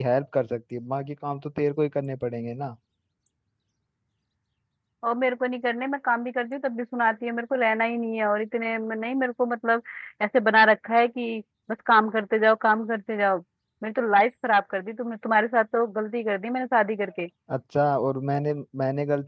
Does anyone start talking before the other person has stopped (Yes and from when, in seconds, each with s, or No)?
No